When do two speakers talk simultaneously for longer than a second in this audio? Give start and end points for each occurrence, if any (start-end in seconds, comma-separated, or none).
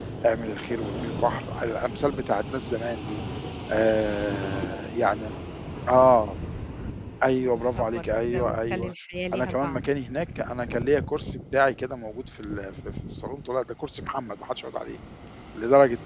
7.4-8.9